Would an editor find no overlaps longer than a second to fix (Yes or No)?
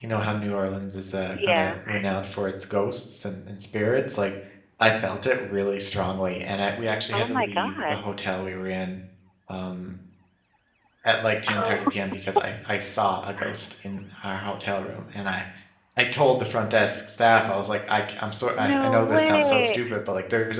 No